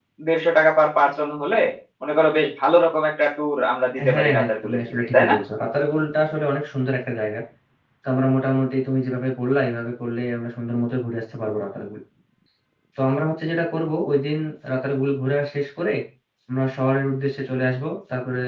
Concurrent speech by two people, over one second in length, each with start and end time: 4.1-5.3

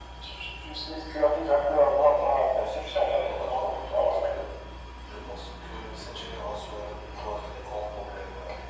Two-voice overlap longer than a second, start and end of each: 1.6-4.3

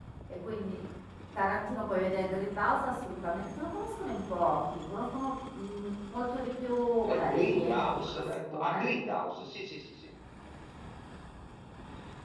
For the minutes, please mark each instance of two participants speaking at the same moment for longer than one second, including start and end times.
7.1-8.9

